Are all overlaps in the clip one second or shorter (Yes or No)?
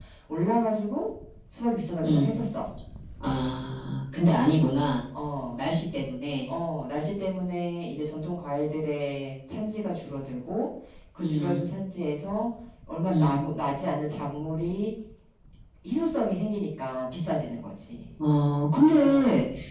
Yes